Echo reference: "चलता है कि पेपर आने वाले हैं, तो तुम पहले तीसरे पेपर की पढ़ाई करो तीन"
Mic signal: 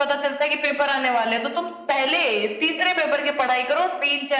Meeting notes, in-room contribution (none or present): none